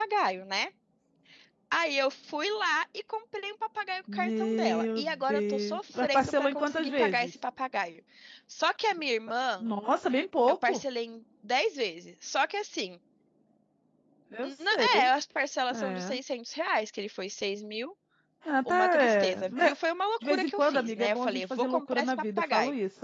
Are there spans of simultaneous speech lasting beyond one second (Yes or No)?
Yes